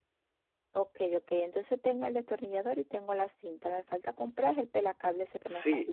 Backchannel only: No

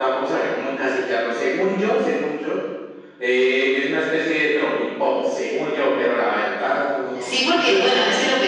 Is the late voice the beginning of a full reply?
Yes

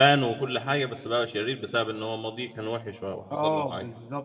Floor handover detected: Yes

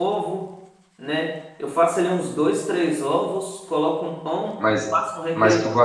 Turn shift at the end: Yes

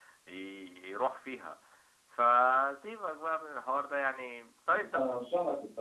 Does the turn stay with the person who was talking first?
No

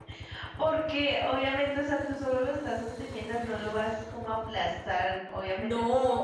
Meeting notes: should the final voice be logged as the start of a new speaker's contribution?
Yes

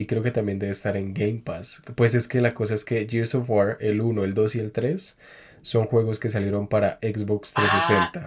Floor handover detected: Yes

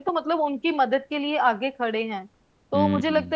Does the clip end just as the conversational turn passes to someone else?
No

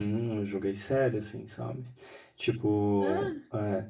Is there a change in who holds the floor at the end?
No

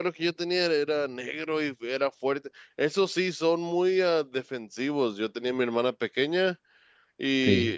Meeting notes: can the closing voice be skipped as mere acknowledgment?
Yes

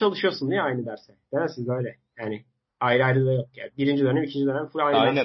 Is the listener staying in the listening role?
No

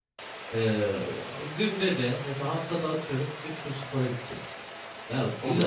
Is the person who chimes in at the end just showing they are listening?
Yes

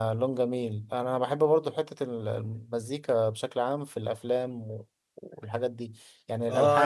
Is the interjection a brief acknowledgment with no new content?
No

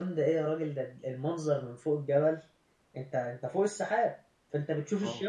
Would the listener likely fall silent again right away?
Yes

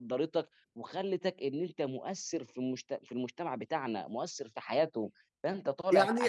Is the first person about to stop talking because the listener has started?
Yes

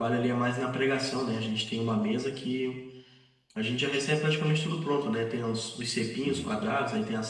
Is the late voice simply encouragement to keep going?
Yes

